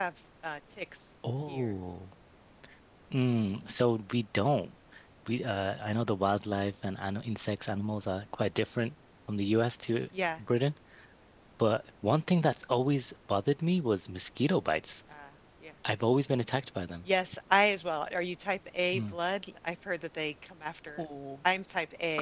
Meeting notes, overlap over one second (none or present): none